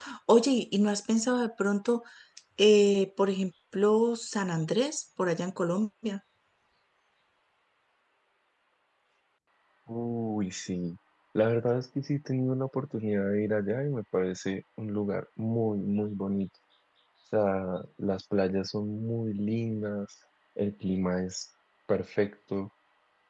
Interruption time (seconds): none

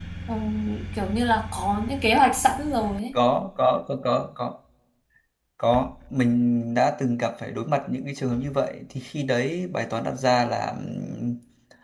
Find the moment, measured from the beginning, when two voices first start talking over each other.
none

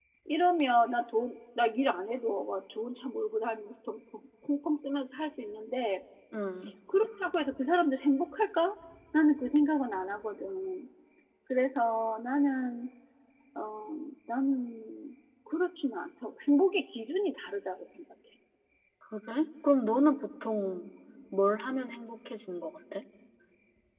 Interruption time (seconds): none

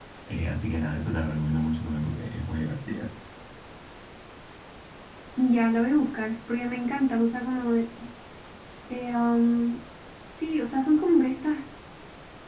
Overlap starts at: none

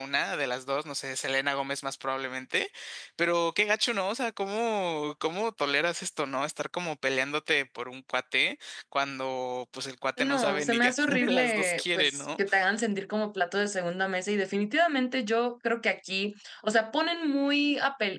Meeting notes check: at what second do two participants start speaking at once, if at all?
10 s

